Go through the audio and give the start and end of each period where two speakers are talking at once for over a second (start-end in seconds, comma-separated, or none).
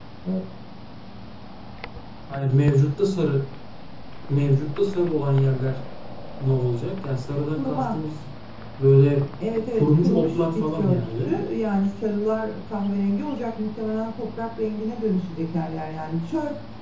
9.8-11.4